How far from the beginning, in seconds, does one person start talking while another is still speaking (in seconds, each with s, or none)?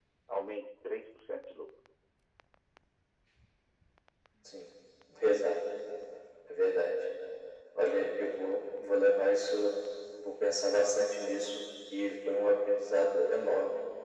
none